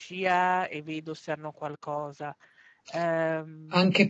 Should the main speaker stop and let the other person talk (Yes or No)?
Yes